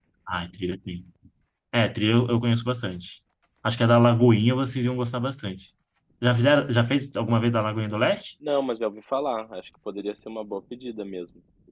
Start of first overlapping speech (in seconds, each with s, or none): none